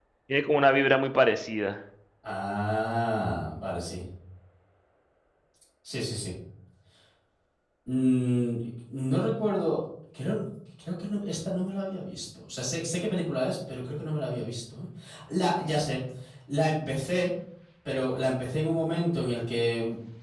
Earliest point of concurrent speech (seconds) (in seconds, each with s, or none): none